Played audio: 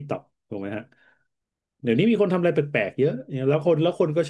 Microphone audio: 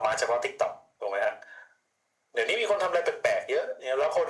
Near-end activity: none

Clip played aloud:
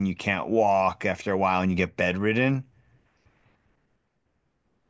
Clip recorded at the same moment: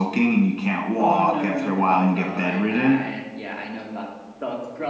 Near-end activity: present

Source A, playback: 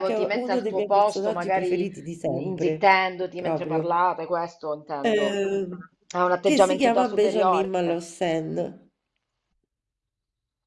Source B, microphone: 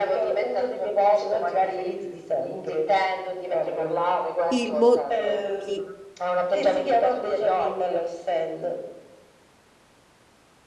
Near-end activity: present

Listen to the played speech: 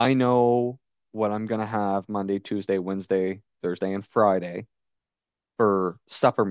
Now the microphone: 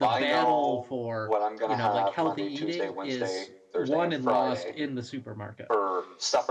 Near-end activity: present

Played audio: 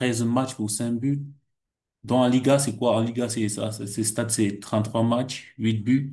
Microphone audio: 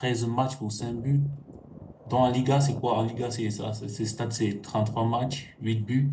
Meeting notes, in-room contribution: none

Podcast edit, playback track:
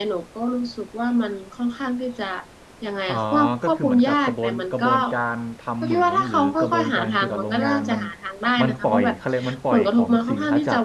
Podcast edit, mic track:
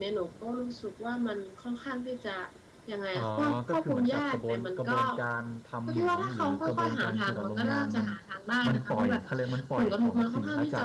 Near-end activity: none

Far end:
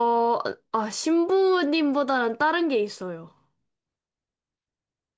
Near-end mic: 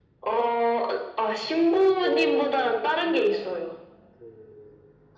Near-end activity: present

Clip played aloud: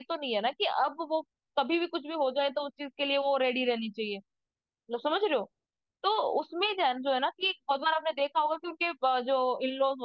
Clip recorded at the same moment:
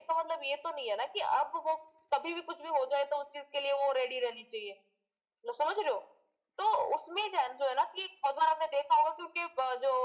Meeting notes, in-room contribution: none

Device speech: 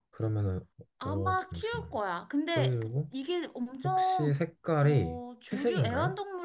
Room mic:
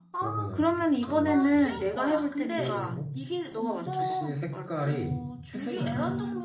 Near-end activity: present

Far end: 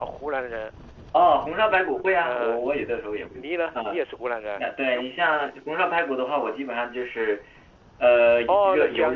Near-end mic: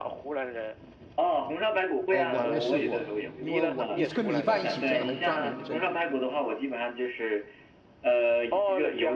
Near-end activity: present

